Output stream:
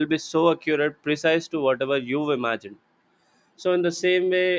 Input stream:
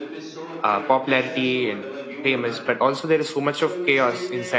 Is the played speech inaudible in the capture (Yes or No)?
No